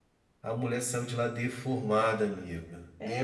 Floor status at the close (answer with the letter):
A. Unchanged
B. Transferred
B